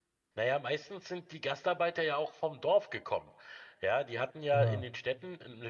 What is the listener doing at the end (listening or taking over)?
listening